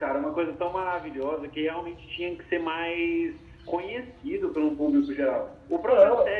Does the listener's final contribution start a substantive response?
No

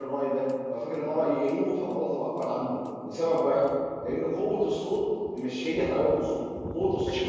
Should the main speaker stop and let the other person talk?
No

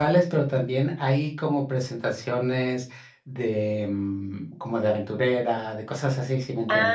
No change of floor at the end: No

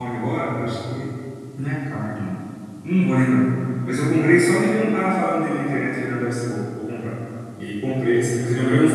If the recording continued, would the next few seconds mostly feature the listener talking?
No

